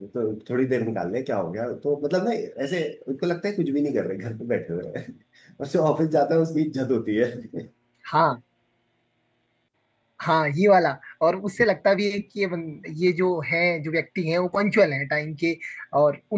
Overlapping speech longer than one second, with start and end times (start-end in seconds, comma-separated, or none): none